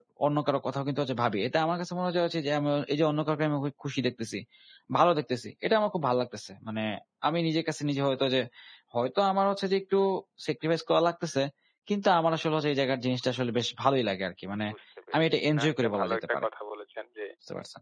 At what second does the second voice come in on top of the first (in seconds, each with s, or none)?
15.2 s